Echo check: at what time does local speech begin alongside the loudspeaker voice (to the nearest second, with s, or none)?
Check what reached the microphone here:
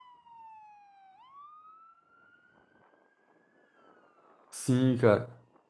5 s